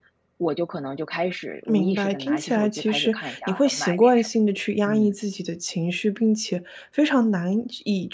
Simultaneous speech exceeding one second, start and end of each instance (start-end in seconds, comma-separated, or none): 1.7-4.3